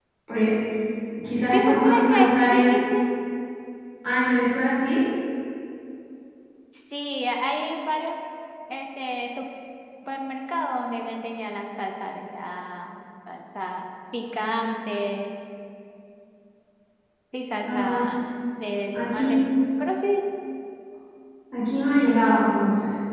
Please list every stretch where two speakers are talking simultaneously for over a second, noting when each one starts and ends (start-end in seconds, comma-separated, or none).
1.5-2.8